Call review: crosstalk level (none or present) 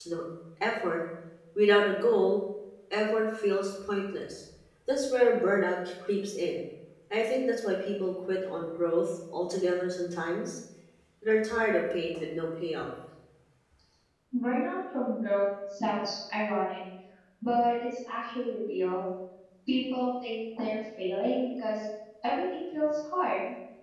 none